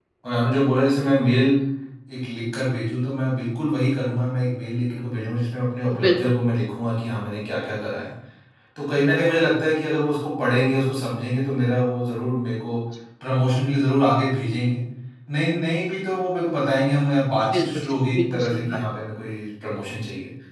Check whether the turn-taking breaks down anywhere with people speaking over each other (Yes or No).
Yes